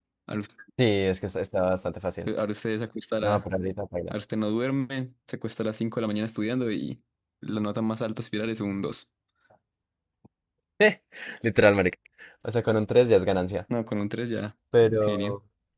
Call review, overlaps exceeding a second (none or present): none